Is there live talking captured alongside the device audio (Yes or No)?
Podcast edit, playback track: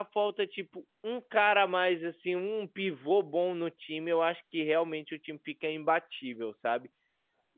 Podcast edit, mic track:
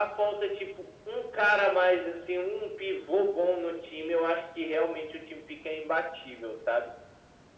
No